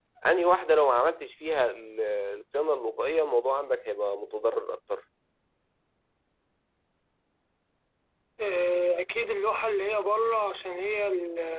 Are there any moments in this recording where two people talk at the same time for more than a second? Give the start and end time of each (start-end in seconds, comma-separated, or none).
none